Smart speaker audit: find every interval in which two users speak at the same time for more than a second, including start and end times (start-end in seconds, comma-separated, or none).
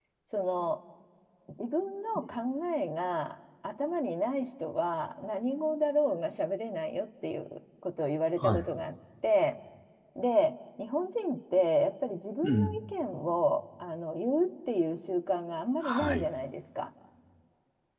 none